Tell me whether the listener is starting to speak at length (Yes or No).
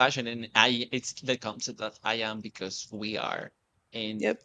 No